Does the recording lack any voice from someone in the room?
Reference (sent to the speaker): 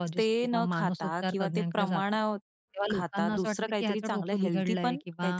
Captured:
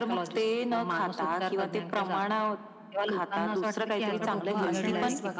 No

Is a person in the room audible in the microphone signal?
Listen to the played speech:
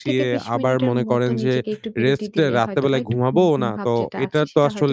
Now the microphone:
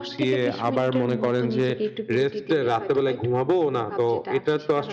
No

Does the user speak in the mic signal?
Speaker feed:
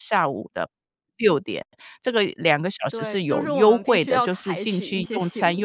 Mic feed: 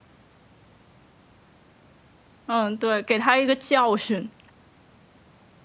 Yes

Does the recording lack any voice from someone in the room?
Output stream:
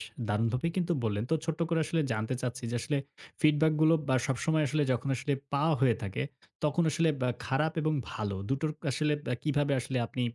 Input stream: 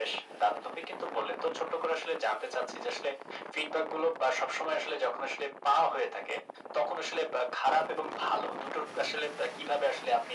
Yes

